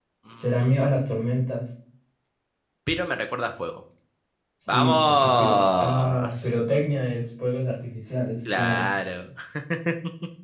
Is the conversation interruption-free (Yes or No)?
No